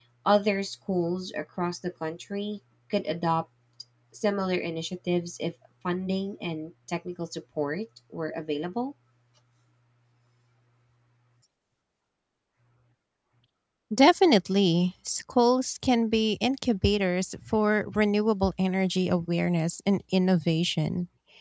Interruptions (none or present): none